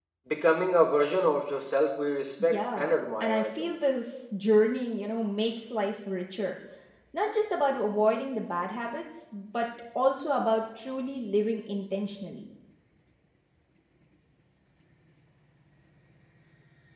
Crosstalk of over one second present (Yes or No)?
Yes